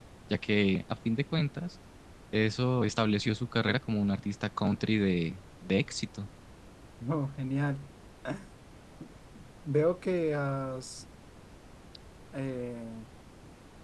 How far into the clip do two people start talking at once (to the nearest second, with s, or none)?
none